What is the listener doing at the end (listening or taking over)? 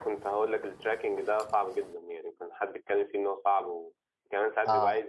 listening